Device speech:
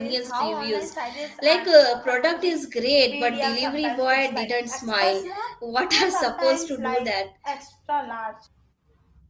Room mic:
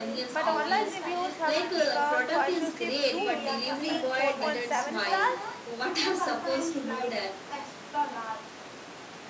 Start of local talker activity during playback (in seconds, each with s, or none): 0.3 s